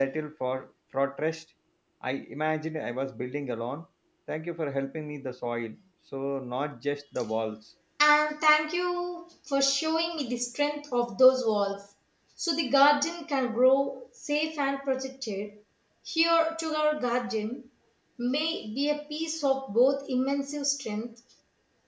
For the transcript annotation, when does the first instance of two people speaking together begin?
none

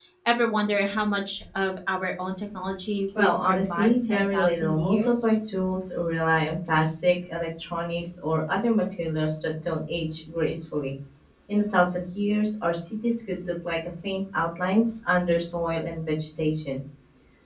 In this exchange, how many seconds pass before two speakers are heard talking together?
3.2 s

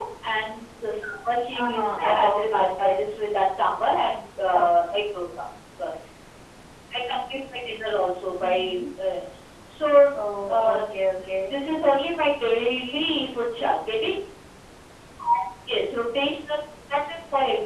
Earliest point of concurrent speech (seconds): 1.6 s

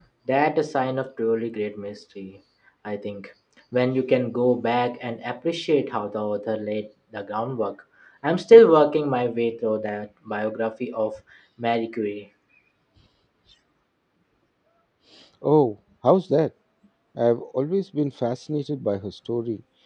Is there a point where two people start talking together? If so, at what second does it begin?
none

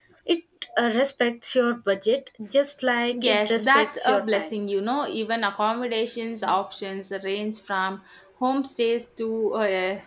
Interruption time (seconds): 3.1 s

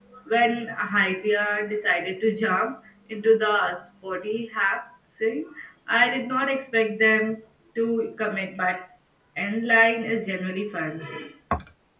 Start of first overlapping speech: none

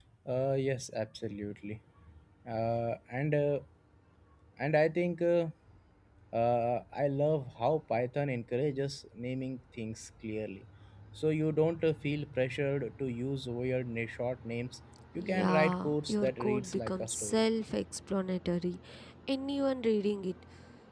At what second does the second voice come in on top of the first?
15.2 s

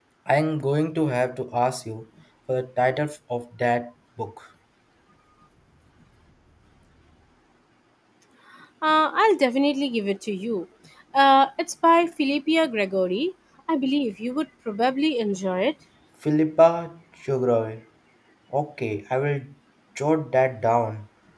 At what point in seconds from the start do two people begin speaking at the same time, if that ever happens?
none

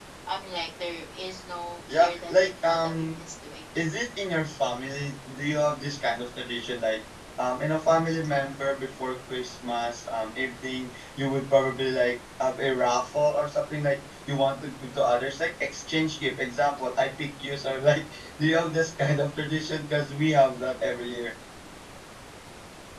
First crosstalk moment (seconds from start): 1.9 s

